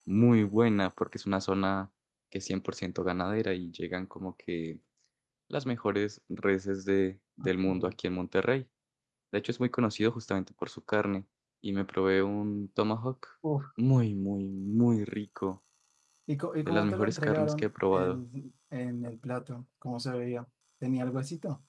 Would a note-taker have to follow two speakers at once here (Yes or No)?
Yes